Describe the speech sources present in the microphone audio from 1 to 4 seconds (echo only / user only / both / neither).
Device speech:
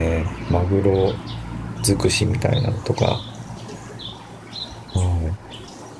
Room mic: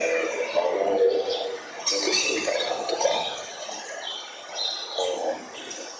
echo only